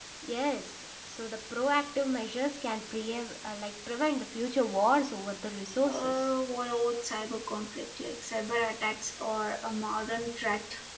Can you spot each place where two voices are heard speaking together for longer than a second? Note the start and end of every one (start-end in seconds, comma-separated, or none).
none